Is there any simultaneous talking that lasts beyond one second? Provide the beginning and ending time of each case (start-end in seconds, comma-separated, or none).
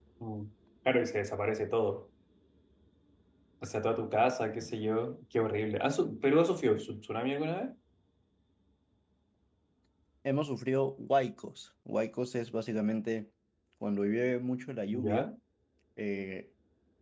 none